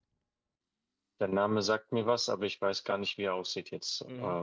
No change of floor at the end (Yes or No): No